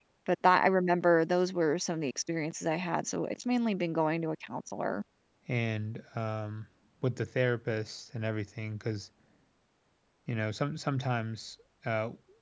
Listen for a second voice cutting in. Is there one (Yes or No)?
No